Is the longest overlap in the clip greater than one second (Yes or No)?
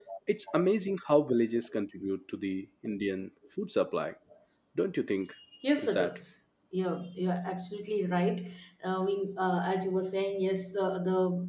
No